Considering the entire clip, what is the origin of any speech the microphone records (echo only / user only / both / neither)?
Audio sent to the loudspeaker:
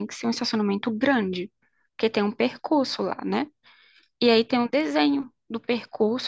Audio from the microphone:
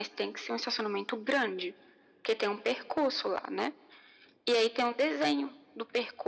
echo only